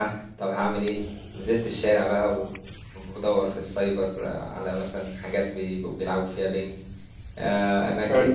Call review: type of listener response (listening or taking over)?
listening